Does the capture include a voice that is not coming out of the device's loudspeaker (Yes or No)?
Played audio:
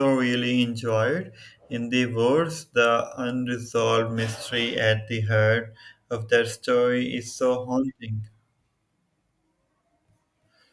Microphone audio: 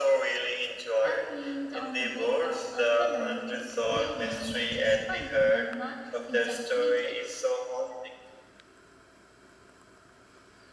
Yes